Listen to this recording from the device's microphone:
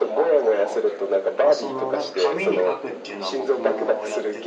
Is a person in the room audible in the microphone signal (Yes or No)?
Yes